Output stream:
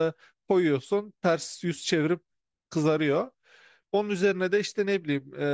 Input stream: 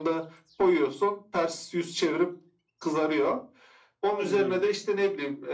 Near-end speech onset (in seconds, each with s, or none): 4.1 s